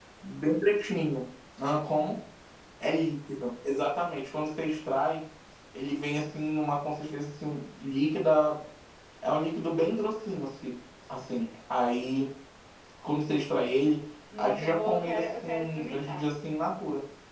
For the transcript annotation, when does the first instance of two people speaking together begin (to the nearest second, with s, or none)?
14 s